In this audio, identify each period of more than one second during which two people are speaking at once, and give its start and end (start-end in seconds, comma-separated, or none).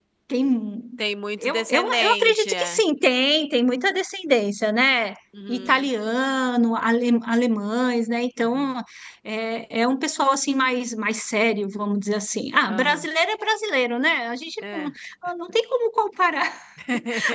1.4-2.8